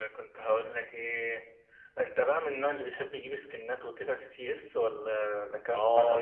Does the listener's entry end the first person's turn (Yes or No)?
Yes